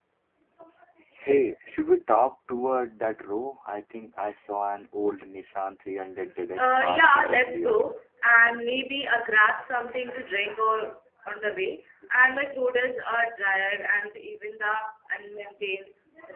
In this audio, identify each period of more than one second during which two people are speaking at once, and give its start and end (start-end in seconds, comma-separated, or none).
6.5-7.8